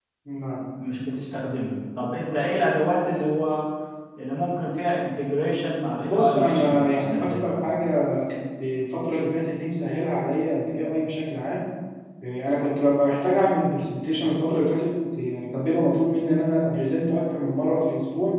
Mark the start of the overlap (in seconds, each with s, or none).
6.0 s